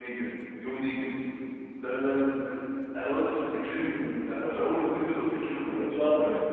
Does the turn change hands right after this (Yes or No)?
Yes